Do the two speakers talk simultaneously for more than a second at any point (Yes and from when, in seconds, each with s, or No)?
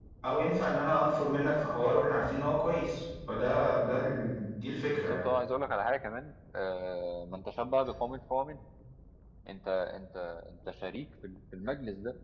No